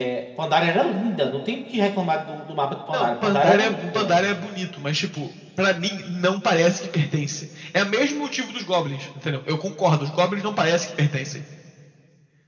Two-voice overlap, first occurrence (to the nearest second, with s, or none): 3 s